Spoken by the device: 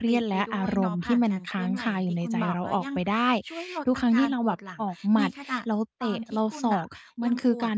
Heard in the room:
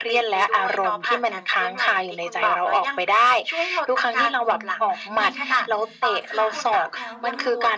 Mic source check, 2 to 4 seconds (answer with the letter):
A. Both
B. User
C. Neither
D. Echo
D